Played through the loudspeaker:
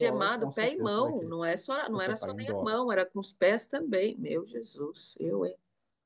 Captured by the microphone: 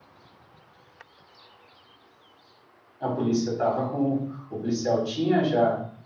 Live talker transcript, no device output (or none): A polícia estava com. O policial tinha já